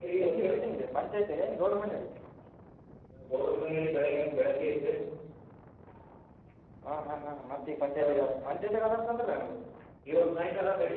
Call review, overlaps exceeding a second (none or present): none